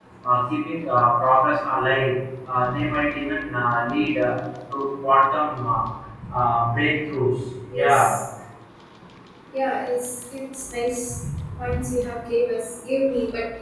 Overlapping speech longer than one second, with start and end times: none

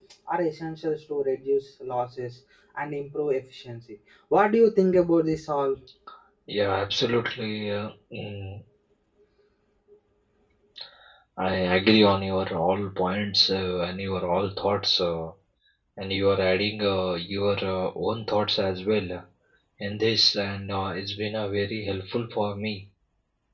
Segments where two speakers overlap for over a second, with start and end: none

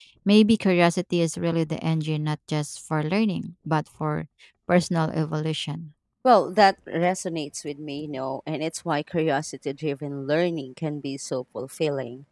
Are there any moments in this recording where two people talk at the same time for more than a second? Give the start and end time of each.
none

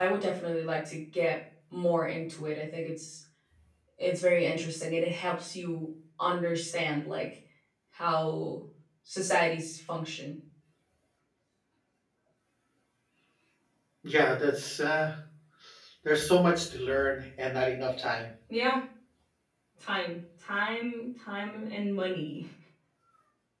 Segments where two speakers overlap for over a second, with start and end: none

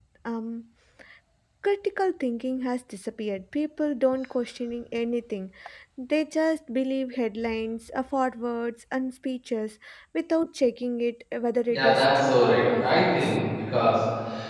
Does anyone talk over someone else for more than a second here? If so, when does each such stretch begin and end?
11.8-13.3

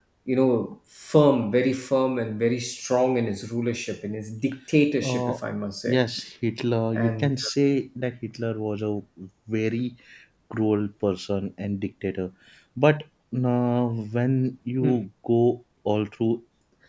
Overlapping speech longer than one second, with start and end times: none

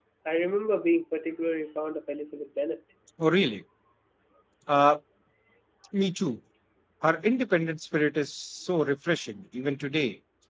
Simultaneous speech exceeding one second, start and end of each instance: none

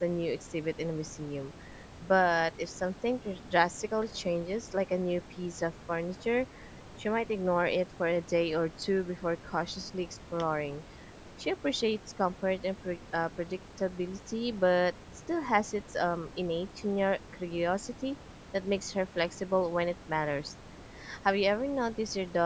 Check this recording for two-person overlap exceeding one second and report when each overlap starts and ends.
none

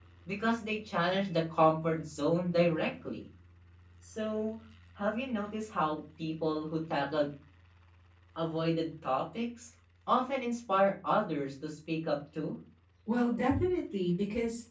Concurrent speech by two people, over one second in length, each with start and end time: none

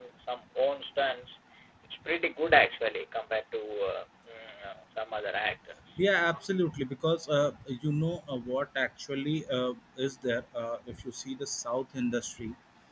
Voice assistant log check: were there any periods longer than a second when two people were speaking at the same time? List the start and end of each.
none

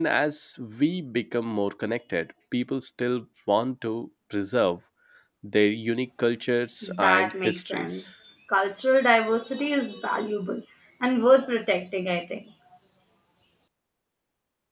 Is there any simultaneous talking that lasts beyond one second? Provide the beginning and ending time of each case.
6.8-8.1

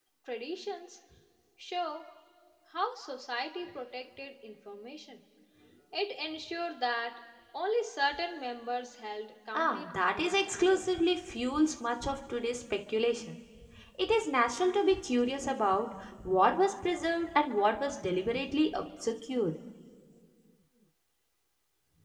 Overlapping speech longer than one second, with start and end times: 9.5-10.8

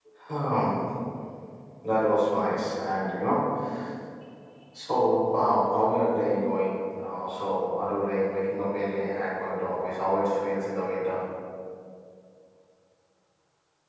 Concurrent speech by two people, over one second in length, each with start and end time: none

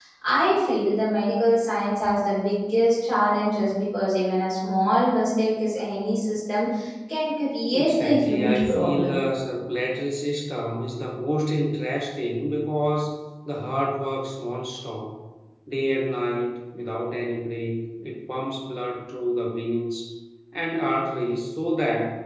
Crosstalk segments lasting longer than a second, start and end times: 7.7-9.2

